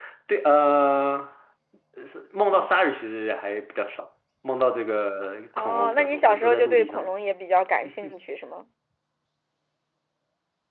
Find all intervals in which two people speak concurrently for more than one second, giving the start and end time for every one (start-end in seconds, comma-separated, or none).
5.6-7.1